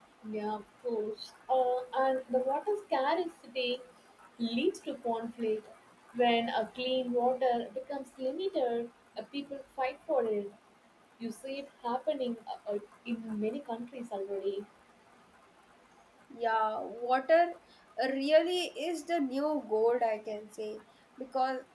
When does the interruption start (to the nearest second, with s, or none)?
none